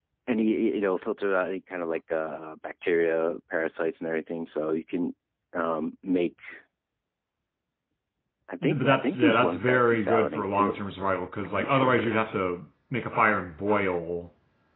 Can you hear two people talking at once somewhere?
Yes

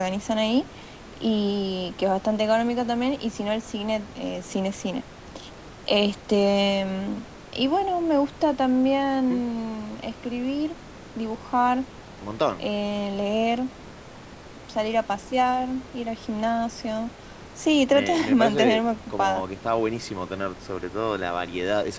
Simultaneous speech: Yes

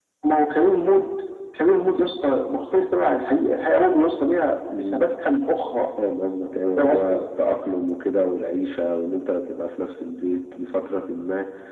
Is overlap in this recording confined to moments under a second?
Yes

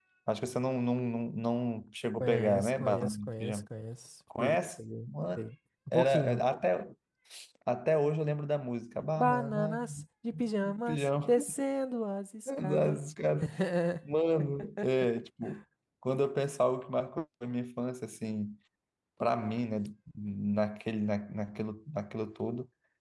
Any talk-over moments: Yes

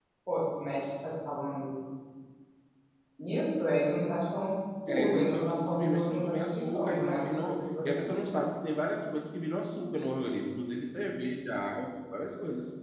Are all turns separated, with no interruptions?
No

